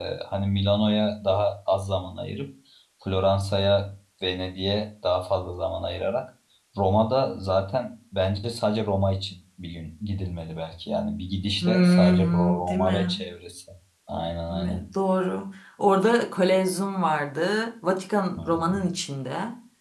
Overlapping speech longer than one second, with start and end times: 11.6-13.2

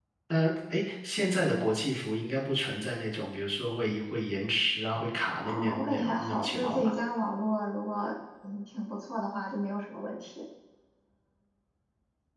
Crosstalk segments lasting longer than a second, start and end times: 5.4-6.9

